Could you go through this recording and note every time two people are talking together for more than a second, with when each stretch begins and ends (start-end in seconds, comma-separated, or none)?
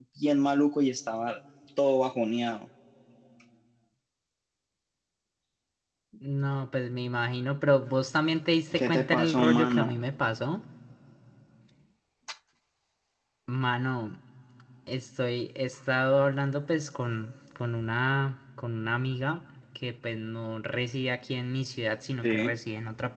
8.7-10.0